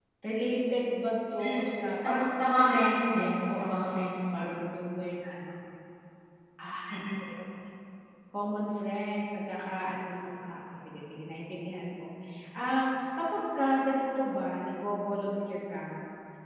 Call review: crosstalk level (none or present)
present